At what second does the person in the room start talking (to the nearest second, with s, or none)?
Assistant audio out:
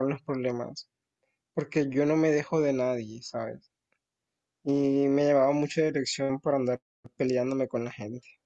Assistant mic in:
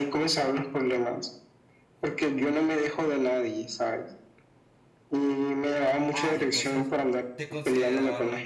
6 s